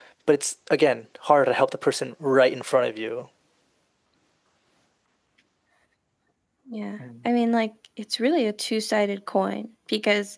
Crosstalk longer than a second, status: none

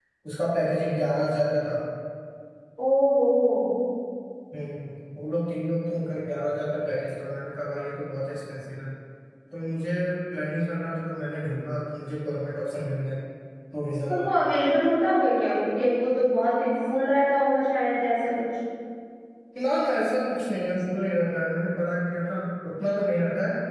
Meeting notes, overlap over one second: none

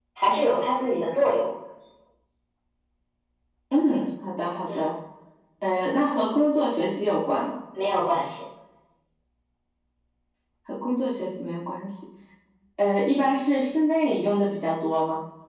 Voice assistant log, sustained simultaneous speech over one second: none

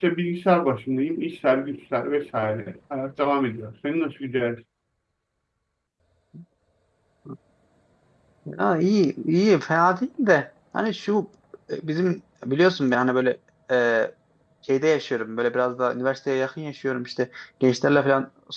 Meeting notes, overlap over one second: none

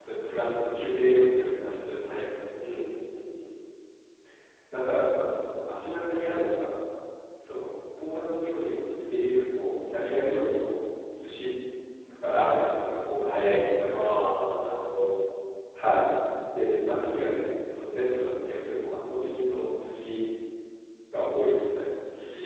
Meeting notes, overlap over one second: none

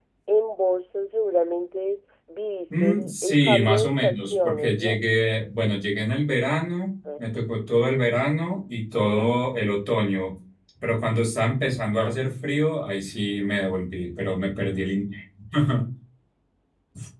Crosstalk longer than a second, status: present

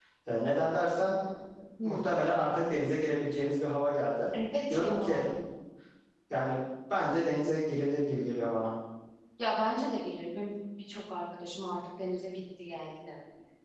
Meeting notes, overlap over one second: none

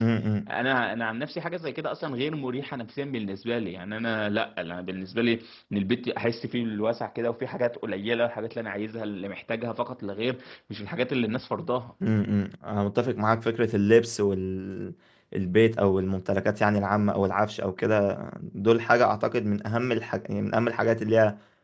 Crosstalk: none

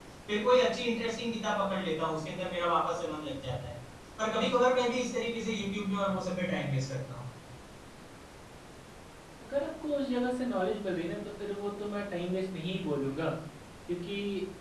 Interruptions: none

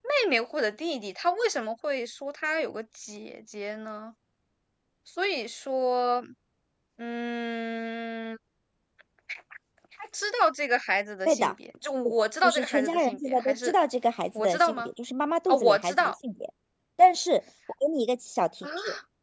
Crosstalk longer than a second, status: present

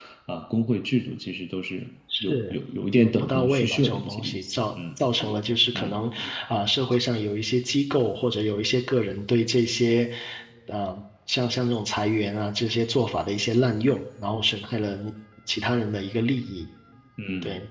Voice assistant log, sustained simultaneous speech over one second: present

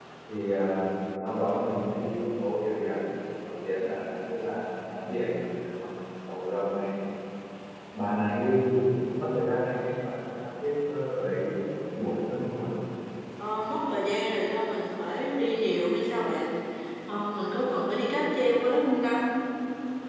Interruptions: none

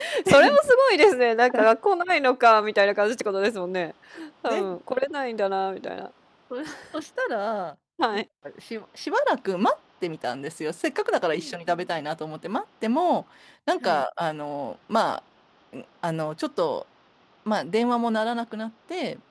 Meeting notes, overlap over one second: none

